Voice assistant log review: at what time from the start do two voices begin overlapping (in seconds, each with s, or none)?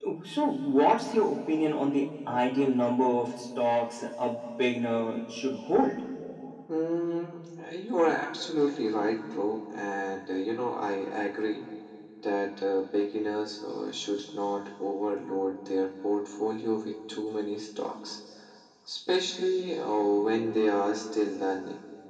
none